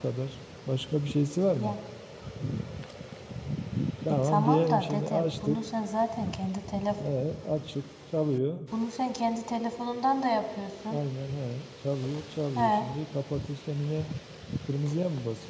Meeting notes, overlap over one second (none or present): present